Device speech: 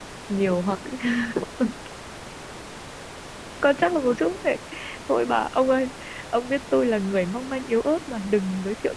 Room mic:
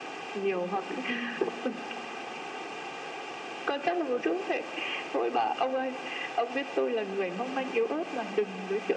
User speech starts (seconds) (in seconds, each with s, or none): none